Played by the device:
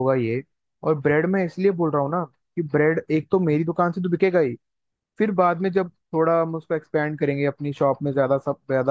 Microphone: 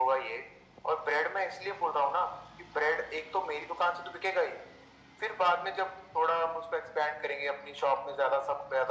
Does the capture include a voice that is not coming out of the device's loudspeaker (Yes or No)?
No